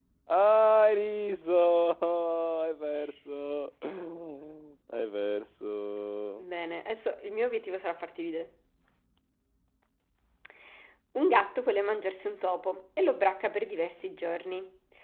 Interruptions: none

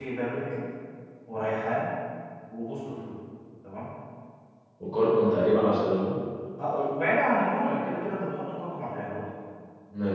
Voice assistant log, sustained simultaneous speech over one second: none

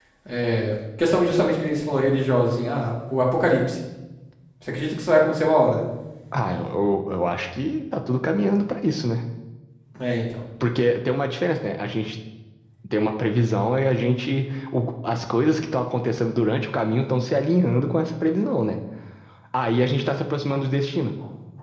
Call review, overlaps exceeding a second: none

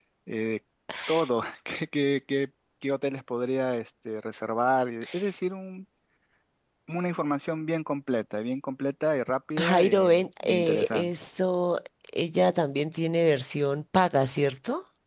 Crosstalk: present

